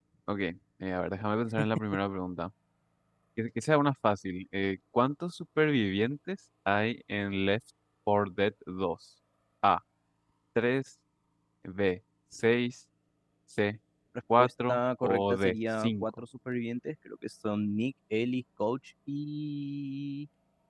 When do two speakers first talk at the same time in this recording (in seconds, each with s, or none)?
14.4 s